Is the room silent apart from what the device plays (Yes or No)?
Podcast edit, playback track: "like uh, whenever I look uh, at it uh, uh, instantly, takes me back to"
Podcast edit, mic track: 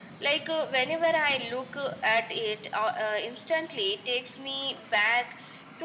Yes